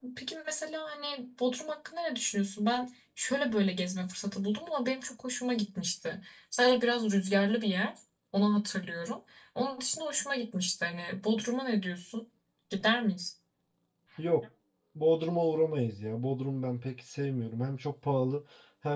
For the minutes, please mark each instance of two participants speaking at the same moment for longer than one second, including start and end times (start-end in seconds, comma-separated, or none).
none